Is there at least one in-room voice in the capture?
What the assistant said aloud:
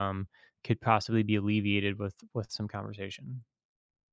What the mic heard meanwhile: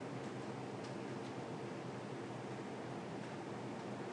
No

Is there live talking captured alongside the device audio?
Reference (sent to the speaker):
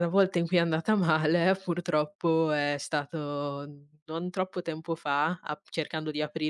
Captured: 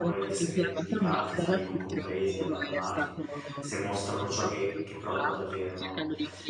Yes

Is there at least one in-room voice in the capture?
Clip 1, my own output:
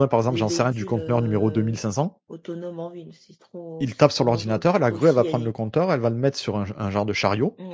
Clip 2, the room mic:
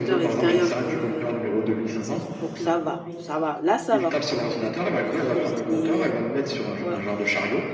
Yes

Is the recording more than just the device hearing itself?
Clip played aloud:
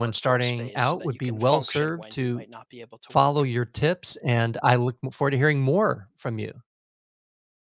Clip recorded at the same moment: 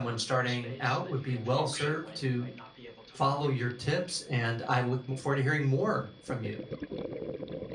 No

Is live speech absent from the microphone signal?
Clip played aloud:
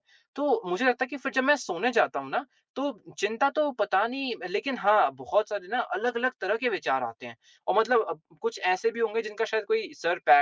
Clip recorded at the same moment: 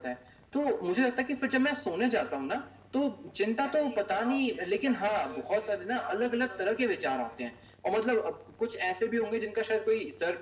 No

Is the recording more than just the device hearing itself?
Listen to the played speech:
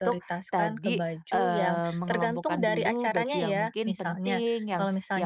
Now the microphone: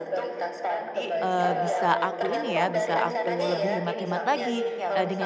Yes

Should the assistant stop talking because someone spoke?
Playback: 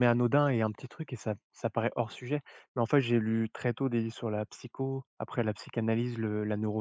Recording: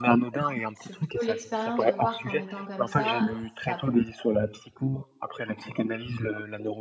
Yes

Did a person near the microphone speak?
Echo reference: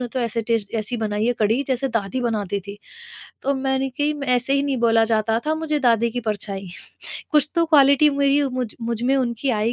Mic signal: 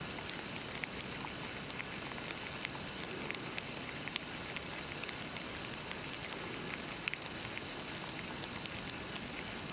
No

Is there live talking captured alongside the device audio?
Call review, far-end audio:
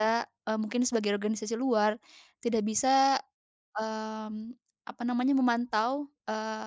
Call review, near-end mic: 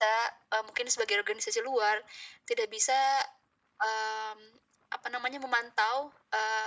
No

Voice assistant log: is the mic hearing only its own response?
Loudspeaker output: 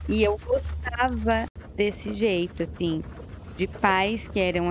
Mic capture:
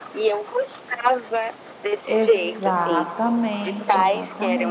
No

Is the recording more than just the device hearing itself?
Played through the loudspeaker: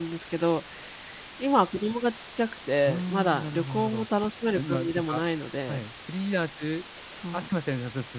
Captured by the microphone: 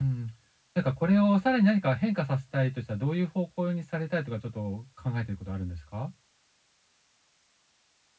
Yes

